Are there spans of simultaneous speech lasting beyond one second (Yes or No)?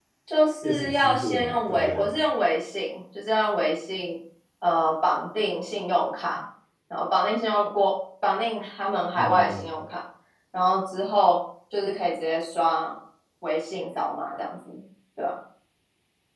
Yes